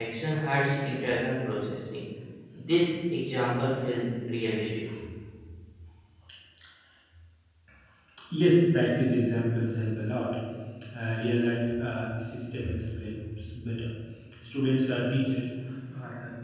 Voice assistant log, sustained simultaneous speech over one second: none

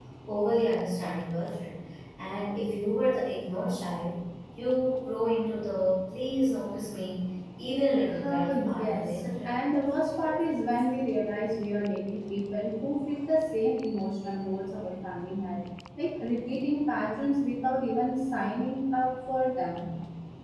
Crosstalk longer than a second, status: present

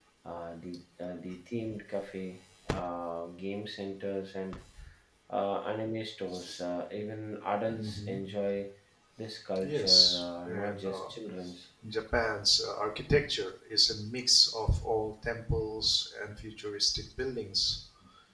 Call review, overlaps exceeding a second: present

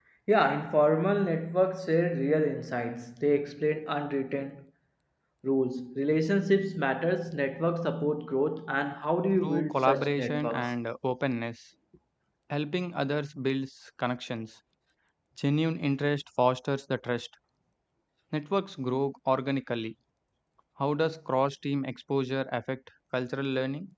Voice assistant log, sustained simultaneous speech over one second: present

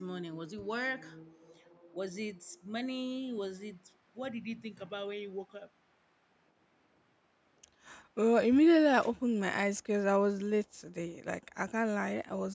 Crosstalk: none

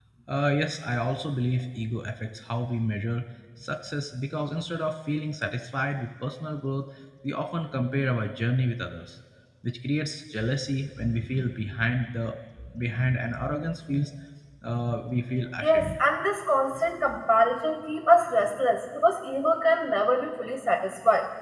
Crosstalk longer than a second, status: none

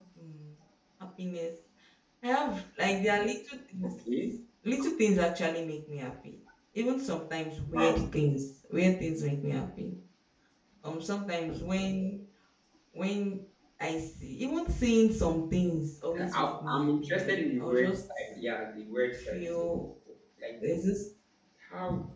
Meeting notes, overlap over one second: present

